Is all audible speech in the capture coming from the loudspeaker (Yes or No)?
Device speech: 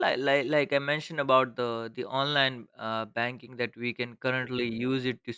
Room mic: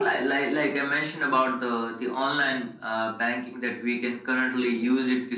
Yes